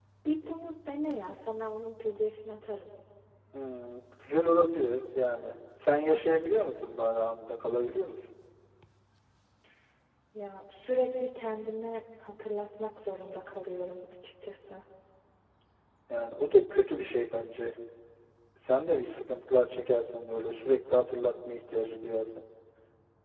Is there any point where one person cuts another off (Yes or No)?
No